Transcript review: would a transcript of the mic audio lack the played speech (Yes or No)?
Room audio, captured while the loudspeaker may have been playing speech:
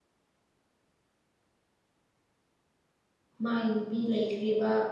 Yes